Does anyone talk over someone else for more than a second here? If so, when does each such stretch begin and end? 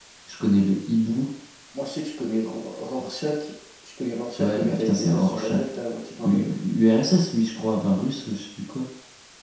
4.4-5.6

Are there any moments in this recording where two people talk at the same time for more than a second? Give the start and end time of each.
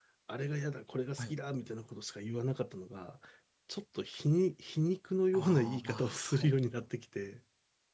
5.3-6.5

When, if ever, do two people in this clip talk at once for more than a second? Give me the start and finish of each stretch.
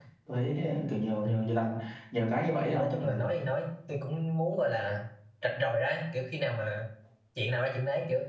none

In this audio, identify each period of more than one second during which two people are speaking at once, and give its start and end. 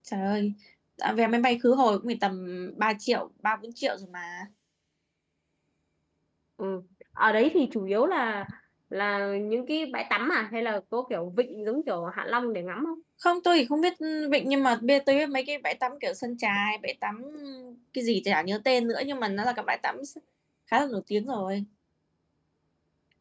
none

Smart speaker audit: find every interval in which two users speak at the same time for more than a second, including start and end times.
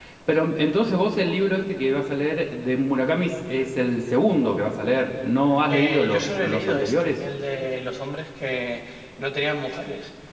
5.7-7.1

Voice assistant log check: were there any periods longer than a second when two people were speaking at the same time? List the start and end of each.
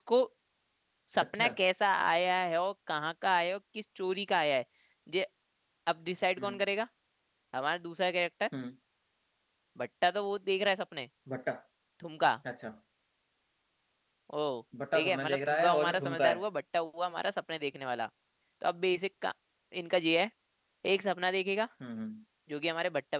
14.9-16.4

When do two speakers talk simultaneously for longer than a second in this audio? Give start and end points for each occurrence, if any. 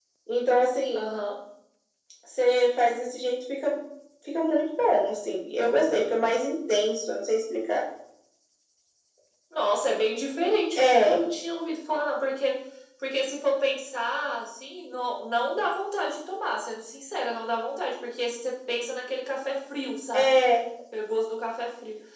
none

